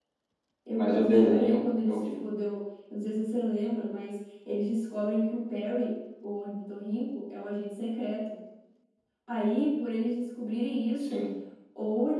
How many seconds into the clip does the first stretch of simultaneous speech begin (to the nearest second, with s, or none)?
1 s